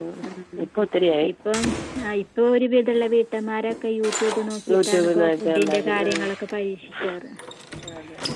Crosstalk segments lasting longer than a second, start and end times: 4.7-6.1

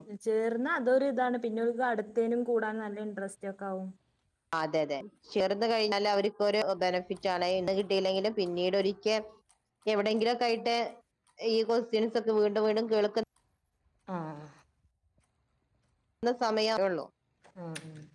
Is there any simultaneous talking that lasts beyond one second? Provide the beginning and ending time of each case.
none

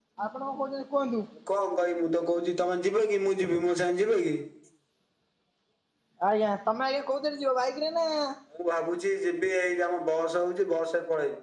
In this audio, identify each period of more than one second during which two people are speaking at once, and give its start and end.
none

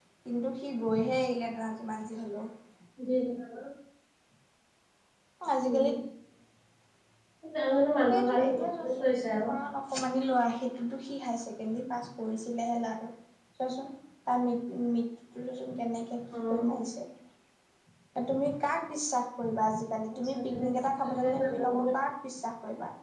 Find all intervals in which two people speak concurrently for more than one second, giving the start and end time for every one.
8.1-9.5, 20.2-21.9

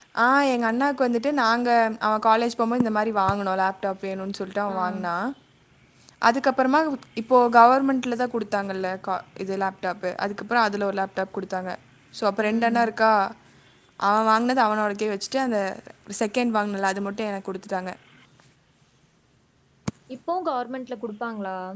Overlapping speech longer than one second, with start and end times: none

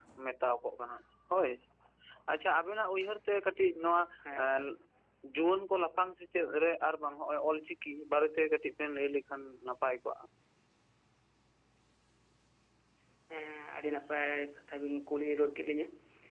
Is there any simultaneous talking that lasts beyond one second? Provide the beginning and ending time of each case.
none

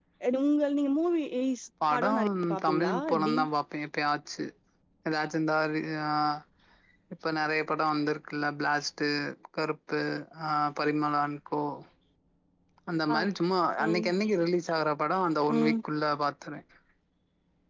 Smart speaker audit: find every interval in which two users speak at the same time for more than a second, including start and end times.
1.9-3.4

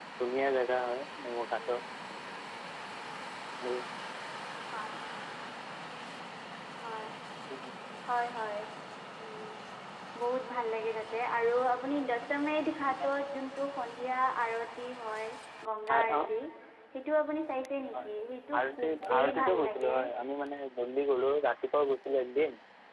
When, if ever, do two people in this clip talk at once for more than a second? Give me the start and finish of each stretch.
18.6-20.0

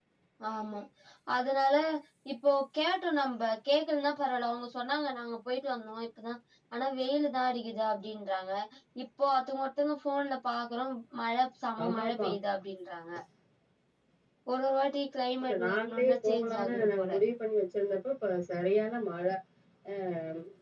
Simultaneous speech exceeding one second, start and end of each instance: 15.4-17.1

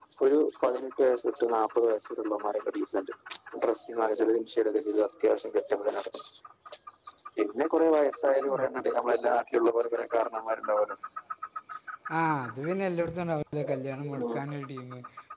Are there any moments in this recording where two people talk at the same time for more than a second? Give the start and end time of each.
none

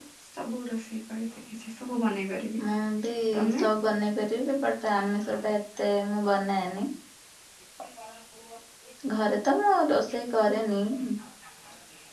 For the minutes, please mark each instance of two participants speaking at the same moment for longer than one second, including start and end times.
none

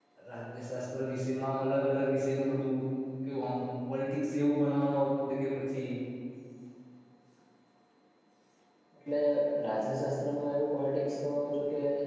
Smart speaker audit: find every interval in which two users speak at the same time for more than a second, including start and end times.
none

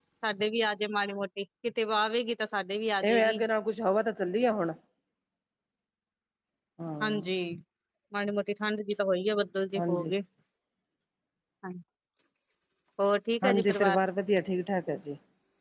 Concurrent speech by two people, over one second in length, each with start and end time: none

